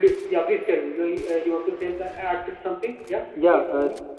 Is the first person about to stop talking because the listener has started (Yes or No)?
Yes